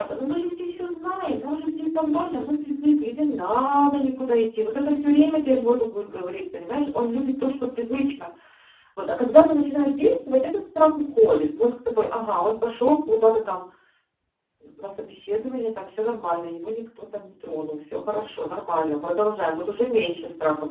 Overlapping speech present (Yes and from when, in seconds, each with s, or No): No